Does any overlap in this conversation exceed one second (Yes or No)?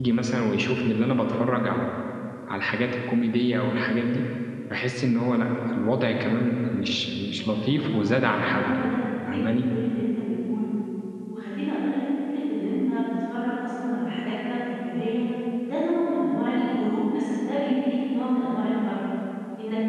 Yes